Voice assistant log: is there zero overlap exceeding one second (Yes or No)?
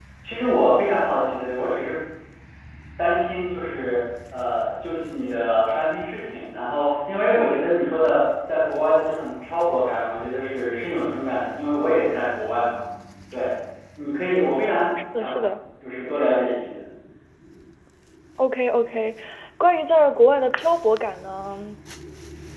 Yes